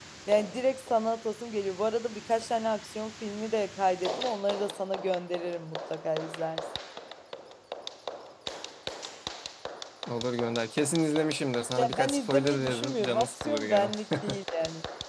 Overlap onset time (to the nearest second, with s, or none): 12 s